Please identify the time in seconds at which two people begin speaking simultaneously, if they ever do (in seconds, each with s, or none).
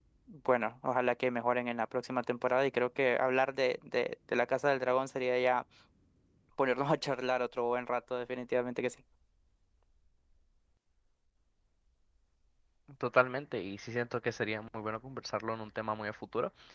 none